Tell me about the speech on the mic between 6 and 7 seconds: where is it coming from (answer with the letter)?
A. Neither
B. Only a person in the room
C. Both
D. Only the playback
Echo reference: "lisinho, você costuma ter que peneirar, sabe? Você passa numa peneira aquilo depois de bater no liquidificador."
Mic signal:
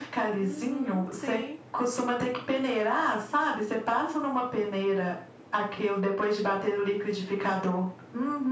D